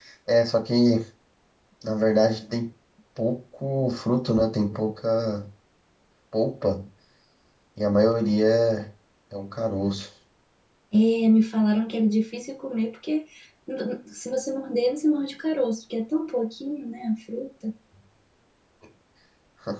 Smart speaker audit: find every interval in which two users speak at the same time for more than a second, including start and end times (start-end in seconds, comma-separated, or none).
none